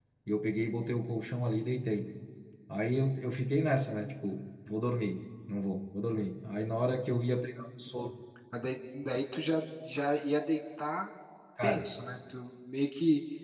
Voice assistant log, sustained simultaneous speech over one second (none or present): none